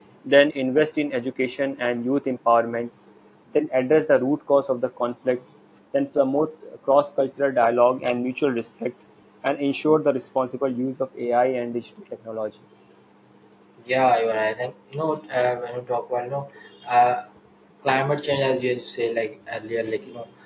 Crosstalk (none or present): none